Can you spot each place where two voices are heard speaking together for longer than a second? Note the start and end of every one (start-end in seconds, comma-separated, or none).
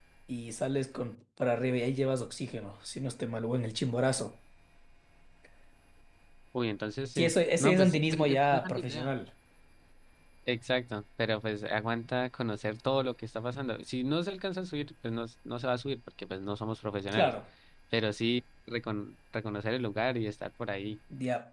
7.2-9.1